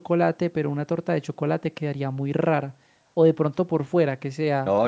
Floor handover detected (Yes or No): Yes